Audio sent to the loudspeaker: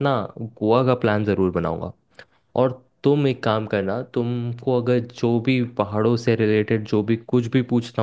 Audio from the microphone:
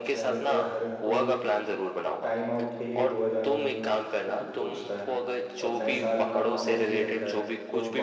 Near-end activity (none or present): present